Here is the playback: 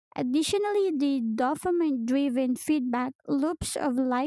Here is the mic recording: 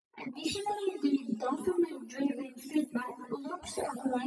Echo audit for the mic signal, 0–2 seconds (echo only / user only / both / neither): echo only